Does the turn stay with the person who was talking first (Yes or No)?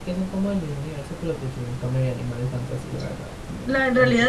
No